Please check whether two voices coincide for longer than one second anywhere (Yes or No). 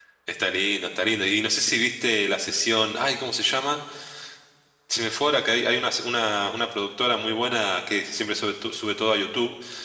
No